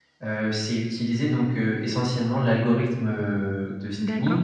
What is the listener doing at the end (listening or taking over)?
taking over